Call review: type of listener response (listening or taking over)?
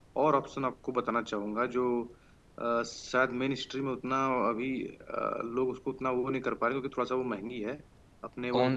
listening